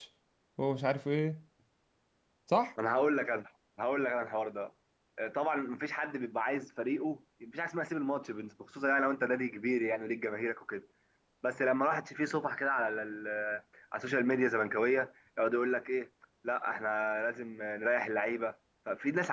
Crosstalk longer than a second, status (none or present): none